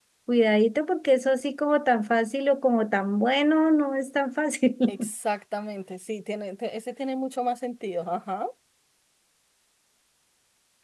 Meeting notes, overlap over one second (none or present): none